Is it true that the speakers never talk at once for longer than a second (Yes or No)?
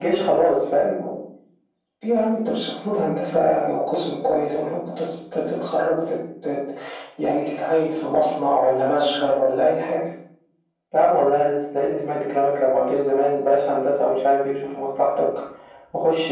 Yes